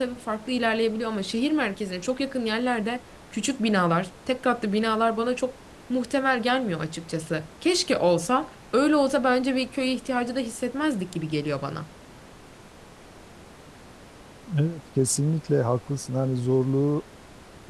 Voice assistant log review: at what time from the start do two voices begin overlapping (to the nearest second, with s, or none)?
none